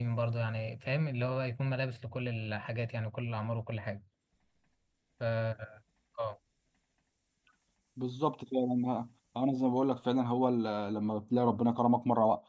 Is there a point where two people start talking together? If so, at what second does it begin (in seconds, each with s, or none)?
none